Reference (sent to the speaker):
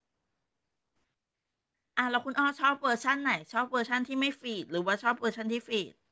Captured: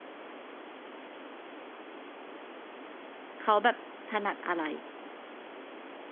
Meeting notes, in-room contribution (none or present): present